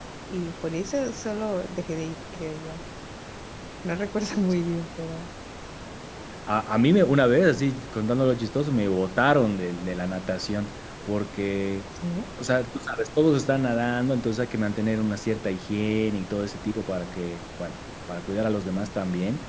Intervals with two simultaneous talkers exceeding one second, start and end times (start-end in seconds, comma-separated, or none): none